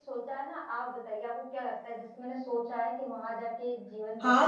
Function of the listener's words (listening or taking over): taking over